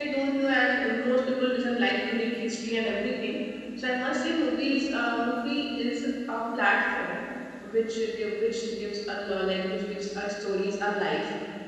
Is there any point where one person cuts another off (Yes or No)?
No